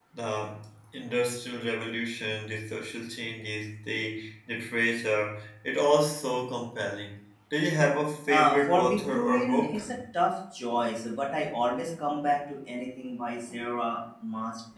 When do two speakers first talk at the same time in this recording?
8.3 s

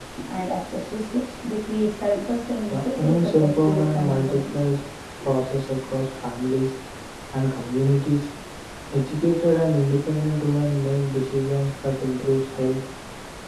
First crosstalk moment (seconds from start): 2.6 s

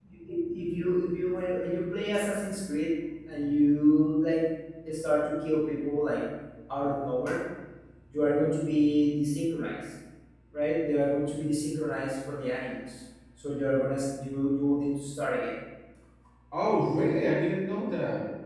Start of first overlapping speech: none

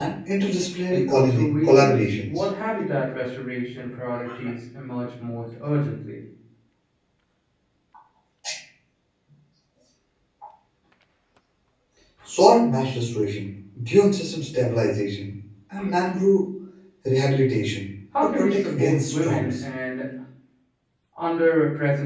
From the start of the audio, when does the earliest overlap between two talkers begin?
0.9 s

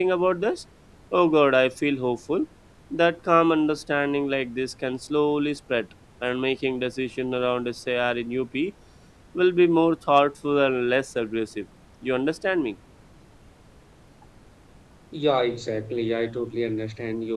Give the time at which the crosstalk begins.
none

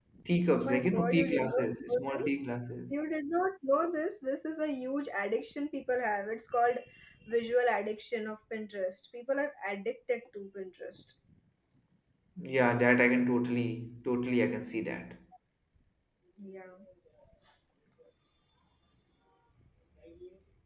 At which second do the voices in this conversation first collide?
0.5 s

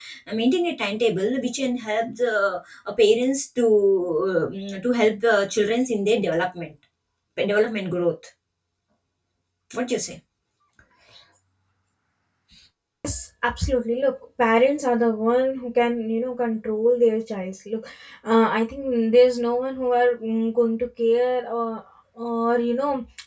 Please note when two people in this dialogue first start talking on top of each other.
none

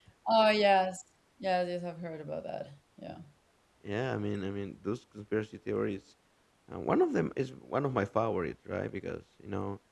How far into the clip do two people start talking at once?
none

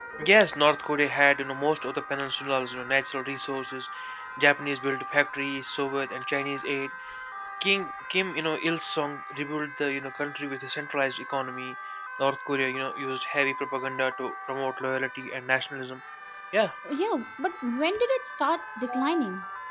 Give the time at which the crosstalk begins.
none

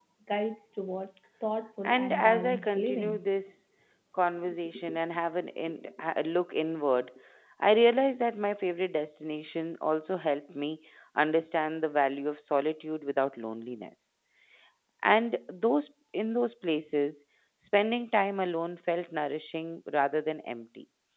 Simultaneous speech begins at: 1.8 s

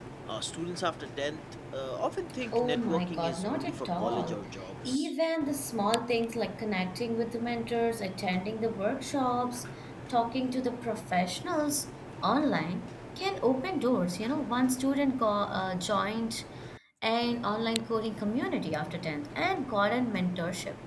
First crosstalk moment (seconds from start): 2.5 s

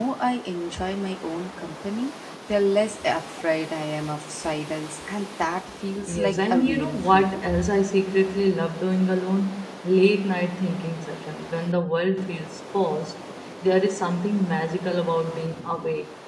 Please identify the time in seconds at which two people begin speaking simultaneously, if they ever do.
6.1 s

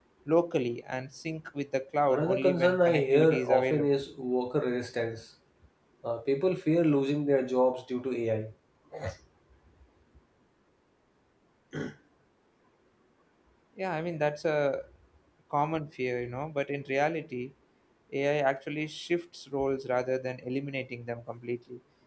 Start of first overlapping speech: 2.1 s

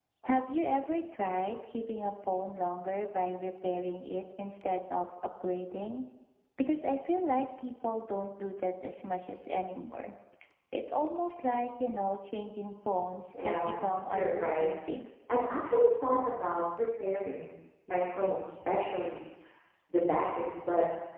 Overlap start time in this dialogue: 13.3 s

